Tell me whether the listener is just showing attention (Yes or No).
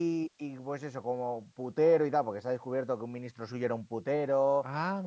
Yes